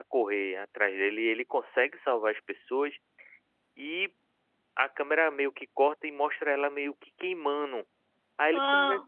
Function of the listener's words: listening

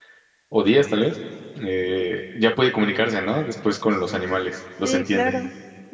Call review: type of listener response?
taking over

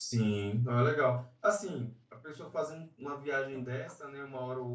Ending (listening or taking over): listening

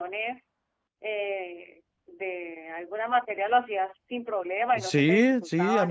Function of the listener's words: taking over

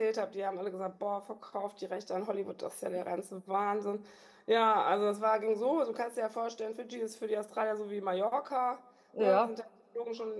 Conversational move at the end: listening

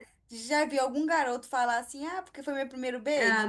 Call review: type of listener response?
taking over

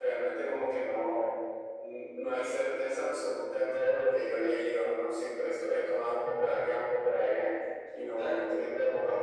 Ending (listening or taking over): listening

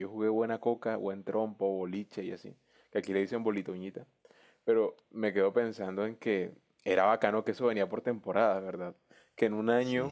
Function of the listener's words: listening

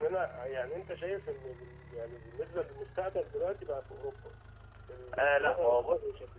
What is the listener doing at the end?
taking over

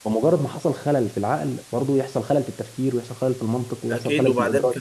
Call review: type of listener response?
taking over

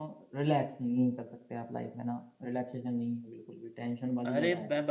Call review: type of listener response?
taking over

